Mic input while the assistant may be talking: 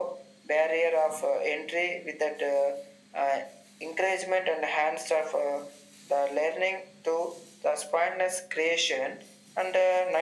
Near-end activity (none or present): none